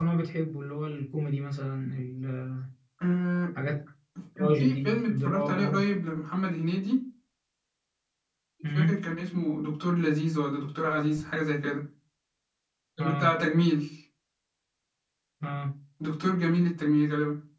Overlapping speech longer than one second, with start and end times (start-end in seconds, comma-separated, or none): 4.4-5.8